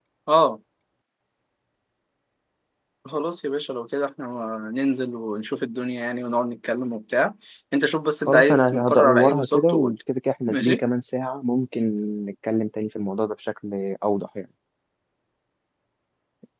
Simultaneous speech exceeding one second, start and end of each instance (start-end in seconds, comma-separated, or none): 8.3-10.0